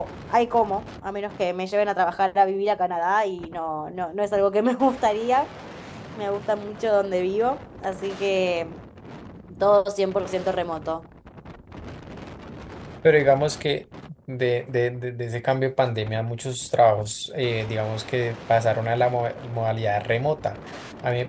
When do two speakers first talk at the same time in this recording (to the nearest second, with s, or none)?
none